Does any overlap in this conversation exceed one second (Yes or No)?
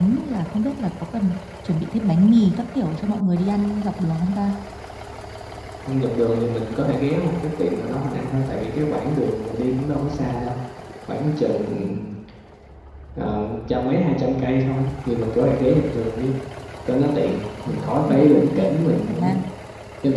Yes